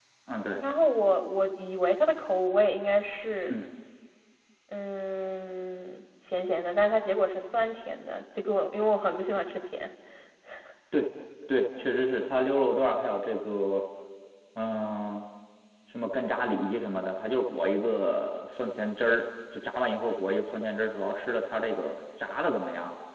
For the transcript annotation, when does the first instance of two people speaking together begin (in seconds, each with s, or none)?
none